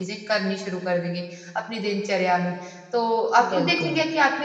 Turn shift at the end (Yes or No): No